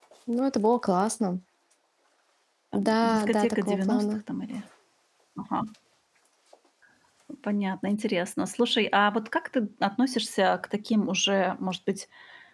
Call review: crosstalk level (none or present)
present